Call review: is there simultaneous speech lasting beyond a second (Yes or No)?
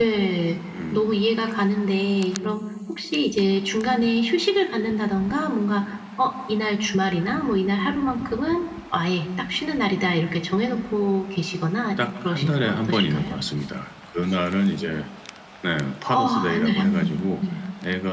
Yes